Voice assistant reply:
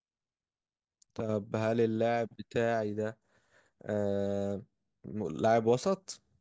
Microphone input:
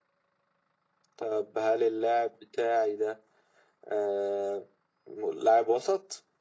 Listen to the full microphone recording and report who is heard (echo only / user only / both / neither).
echo only